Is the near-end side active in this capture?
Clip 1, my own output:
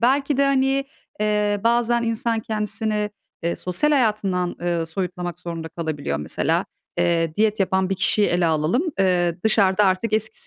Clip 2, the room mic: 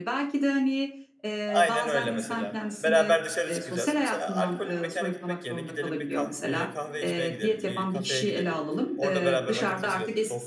Yes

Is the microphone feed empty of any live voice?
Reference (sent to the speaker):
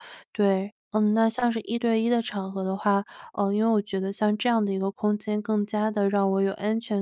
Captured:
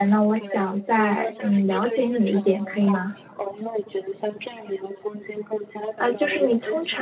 No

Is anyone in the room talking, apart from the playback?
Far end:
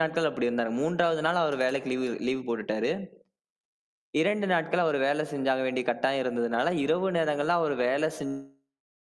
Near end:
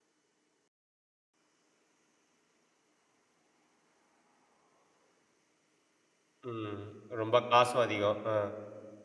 Yes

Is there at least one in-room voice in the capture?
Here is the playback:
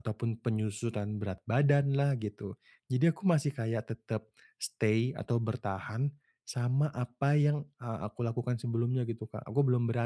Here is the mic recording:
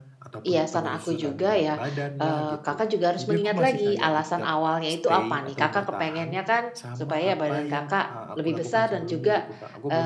Yes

